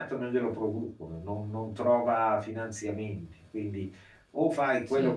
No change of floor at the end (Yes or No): Yes